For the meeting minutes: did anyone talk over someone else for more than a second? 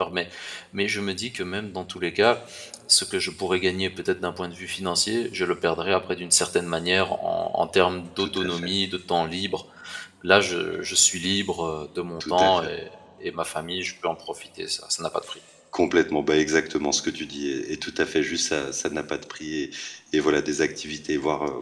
No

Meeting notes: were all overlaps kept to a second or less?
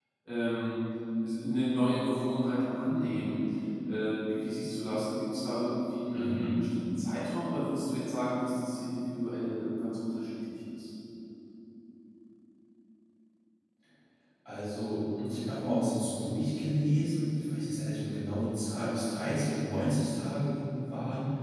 Yes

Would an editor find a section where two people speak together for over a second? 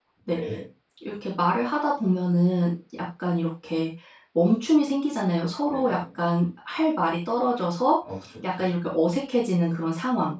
No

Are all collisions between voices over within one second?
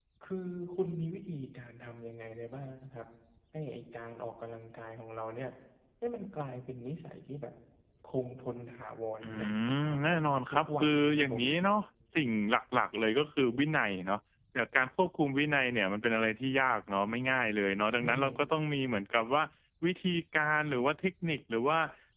No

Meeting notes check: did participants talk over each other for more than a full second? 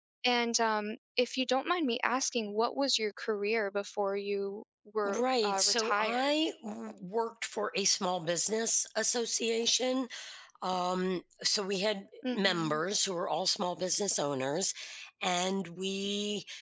Yes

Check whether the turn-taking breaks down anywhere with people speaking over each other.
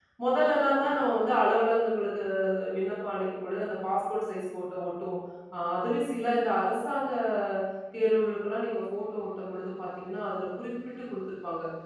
No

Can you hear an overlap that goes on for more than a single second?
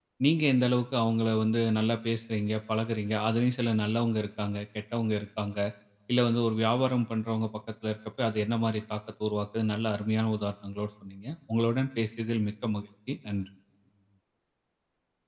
No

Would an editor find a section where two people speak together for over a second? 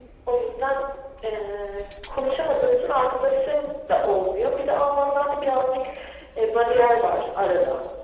No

